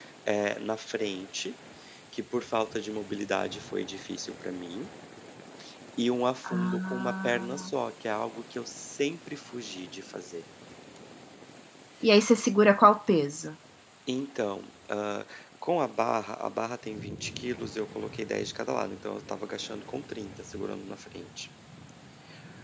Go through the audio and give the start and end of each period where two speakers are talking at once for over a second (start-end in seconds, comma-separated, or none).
6.4-7.7